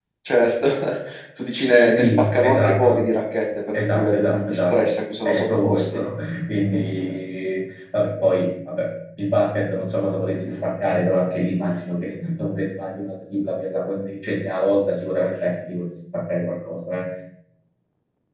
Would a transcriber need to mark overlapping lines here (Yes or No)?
Yes